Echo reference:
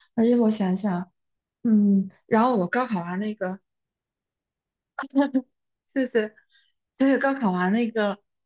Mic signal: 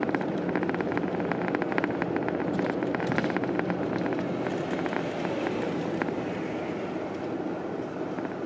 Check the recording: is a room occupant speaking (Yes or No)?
No